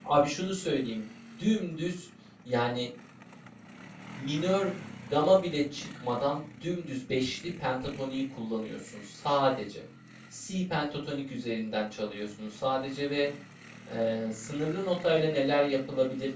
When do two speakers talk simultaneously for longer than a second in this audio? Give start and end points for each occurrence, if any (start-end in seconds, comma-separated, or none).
none